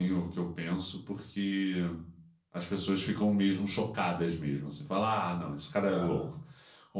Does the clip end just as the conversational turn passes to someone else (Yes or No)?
No